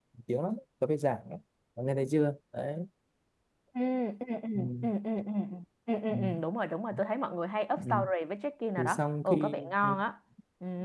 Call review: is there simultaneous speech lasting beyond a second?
Yes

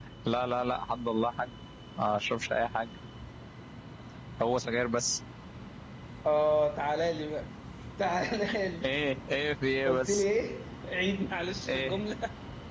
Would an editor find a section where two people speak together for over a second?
No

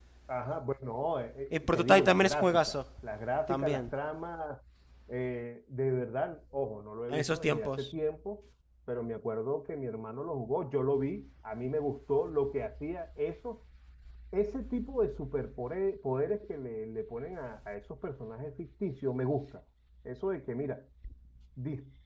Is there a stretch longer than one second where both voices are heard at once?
Yes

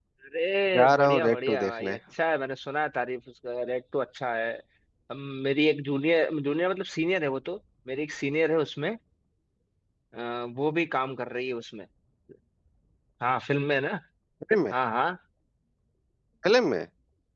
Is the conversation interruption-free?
No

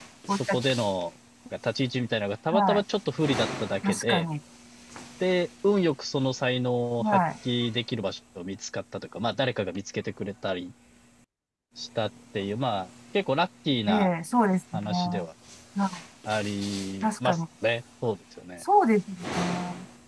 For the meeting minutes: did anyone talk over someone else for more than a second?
No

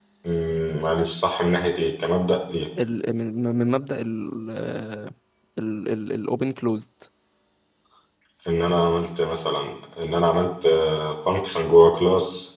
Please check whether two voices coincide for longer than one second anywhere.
No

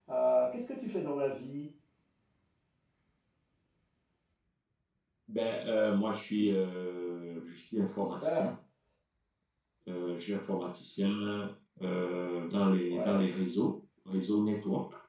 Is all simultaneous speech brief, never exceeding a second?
Yes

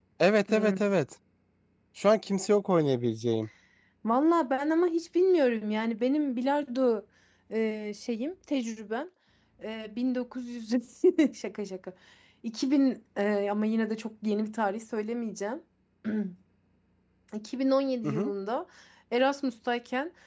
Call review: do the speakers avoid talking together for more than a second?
Yes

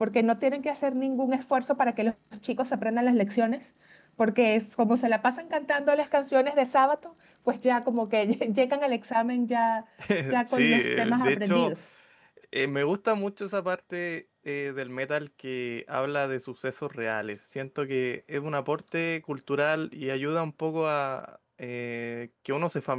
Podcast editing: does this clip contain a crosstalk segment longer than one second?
Yes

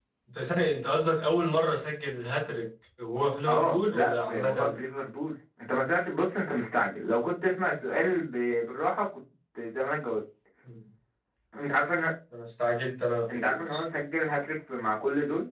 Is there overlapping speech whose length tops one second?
Yes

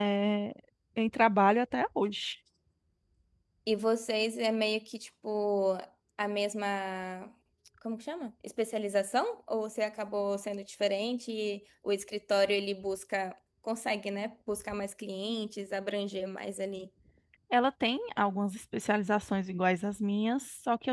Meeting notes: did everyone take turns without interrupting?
Yes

